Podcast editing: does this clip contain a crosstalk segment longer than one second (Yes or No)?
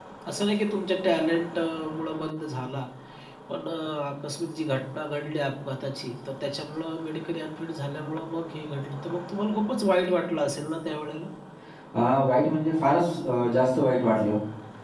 No